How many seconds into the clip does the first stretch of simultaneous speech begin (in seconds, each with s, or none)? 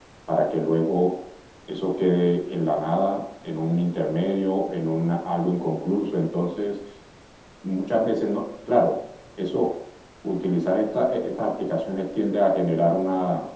none